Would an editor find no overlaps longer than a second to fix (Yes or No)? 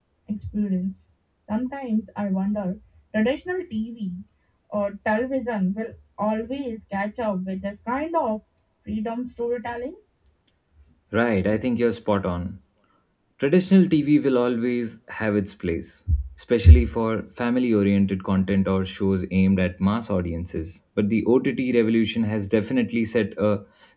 Yes